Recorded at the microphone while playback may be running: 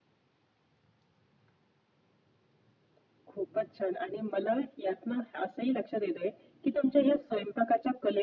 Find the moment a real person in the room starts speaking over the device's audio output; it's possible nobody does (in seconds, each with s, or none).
none